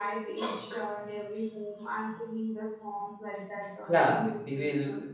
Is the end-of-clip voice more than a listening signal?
Yes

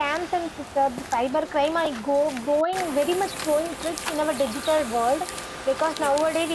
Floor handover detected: No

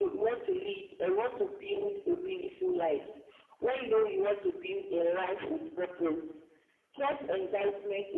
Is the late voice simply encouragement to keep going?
Yes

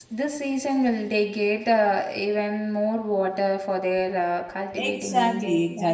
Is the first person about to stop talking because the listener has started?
Yes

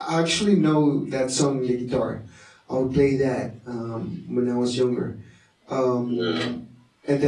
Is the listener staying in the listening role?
Yes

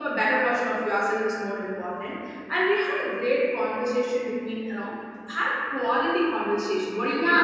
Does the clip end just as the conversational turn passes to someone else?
Yes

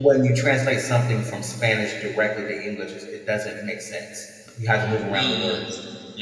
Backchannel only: No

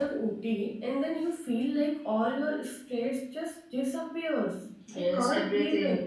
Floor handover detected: Yes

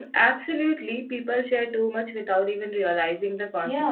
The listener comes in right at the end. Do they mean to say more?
Yes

